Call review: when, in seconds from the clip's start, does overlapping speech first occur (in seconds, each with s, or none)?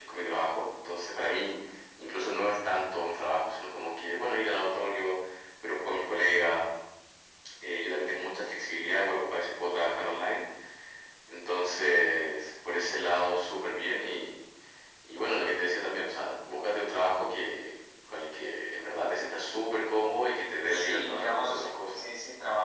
20.7 s